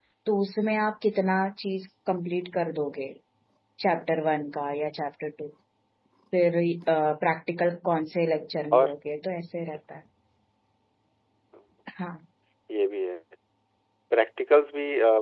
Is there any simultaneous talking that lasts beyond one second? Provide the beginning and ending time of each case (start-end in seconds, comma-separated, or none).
none